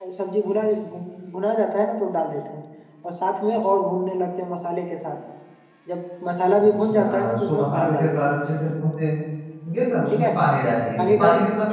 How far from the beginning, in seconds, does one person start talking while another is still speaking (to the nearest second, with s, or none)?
7 s